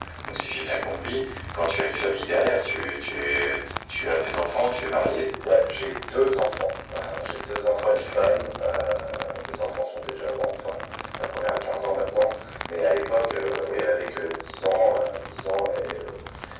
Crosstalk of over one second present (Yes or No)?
No